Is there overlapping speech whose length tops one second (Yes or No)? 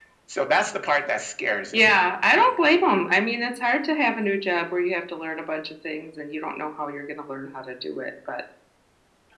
No